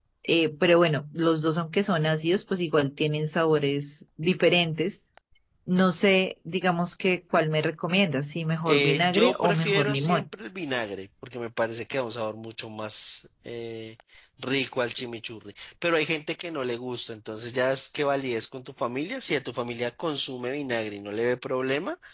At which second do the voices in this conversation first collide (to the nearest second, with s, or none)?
9 s